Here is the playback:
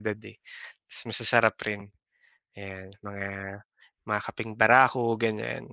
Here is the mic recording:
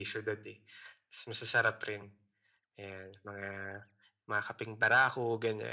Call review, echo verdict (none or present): present